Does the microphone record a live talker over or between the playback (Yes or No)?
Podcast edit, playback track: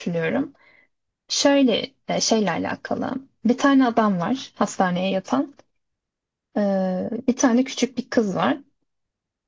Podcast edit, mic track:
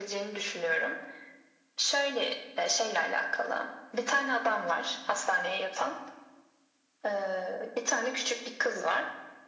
No